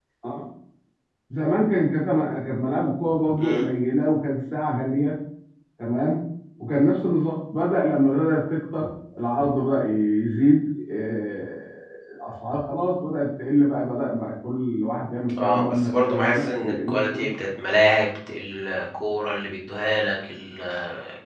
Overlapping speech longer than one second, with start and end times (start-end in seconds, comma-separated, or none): 15.4-17.3